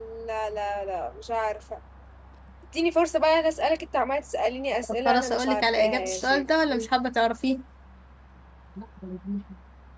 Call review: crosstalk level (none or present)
present